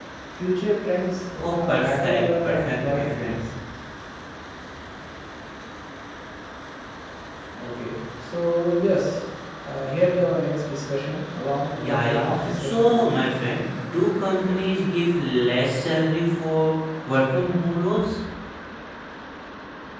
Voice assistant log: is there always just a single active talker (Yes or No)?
No